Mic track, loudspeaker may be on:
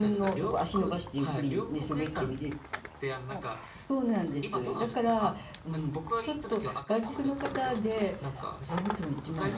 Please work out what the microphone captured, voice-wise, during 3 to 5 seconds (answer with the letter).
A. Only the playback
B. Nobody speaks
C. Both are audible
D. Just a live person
A